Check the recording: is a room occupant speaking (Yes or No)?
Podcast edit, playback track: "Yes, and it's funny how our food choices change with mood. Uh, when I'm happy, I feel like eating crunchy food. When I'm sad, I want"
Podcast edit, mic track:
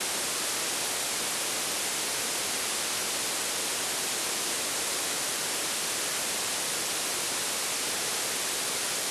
No